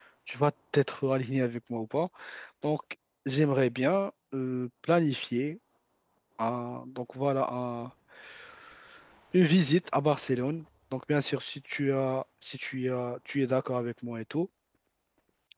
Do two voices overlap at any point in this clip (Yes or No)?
No